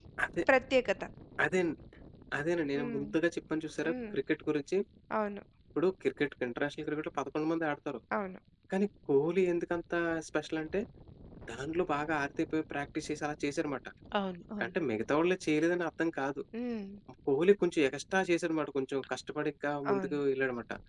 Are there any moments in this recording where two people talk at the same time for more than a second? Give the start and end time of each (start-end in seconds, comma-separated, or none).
none